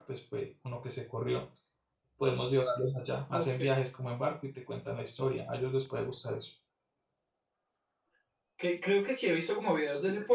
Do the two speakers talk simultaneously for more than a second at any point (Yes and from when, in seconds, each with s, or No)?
No